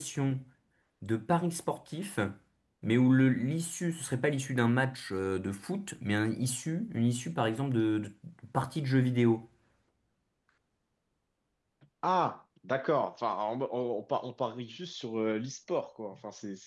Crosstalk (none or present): none